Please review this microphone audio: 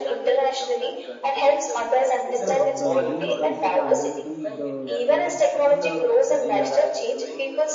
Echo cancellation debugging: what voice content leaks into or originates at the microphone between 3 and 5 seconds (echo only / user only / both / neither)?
both